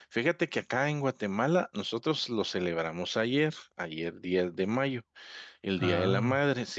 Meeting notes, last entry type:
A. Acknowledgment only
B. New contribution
A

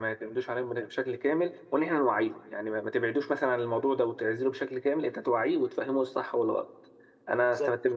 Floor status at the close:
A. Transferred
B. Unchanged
B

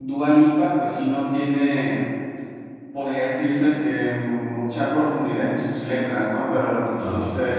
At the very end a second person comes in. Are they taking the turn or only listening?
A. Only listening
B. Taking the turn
A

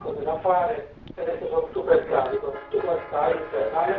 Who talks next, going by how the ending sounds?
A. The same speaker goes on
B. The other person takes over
B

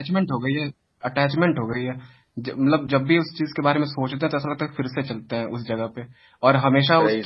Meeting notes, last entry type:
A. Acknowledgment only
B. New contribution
A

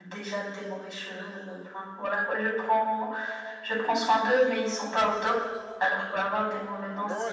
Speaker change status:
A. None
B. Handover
B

